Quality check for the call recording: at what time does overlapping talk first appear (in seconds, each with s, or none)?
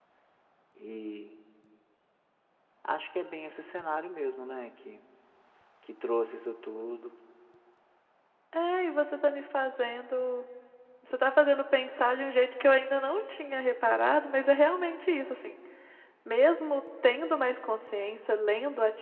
none